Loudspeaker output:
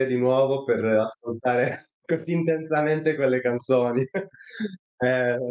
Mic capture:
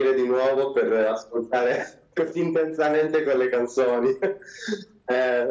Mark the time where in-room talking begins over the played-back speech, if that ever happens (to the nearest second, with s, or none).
none